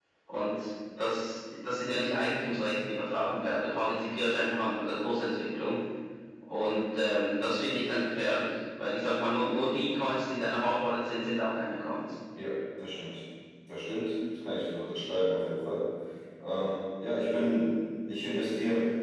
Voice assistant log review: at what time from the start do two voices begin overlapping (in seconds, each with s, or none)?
none